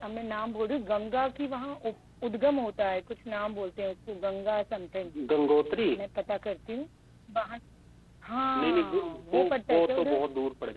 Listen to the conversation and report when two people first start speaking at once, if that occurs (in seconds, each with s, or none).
8.6 s